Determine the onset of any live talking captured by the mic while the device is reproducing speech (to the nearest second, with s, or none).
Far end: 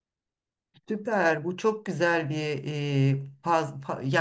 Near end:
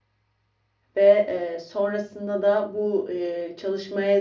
1 s